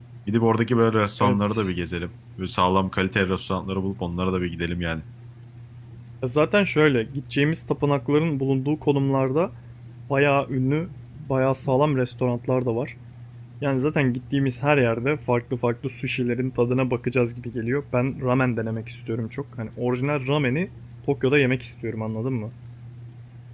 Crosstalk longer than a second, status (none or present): none